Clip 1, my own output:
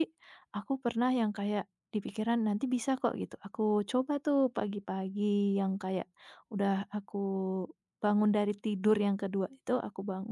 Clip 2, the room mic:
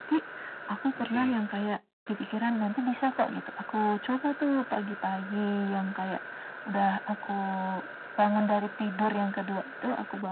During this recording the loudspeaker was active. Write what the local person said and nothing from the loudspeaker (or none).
Oke,